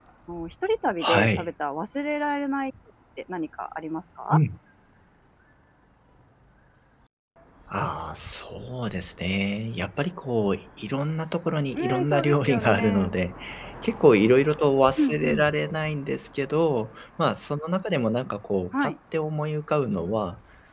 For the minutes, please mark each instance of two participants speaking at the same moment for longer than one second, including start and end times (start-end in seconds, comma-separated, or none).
11.8-13.2